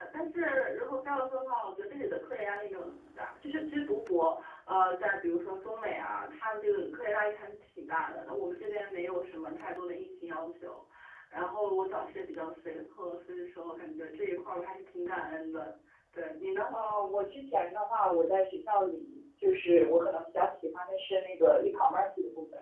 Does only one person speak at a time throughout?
Yes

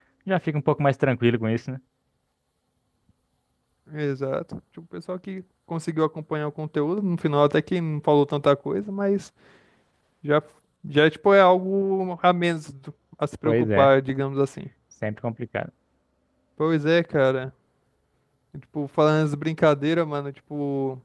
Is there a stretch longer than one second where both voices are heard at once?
No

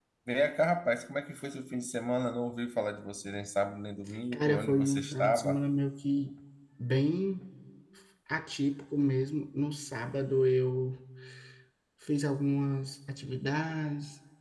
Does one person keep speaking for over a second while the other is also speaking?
Yes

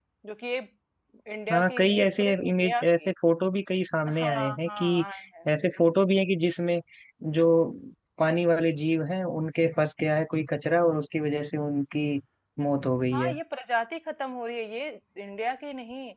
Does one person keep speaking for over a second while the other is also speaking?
Yes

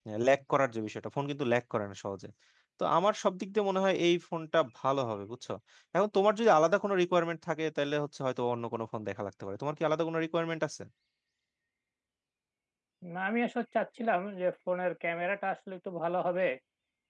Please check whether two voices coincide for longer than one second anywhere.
No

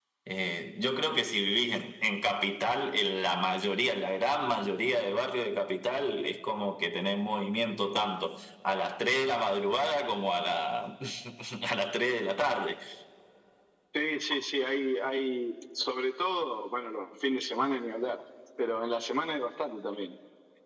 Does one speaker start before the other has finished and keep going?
No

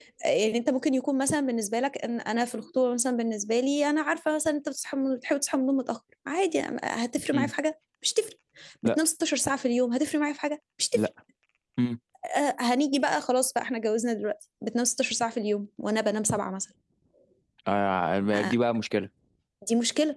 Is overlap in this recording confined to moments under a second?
Yes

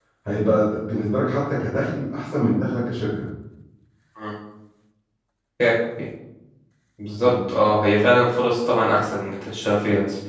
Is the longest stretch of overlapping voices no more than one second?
Yes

